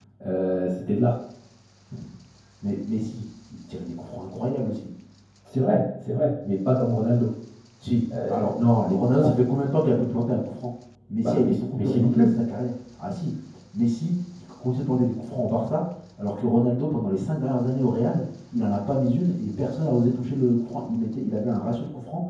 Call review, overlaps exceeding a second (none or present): present